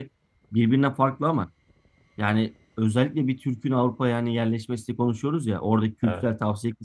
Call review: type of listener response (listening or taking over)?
listening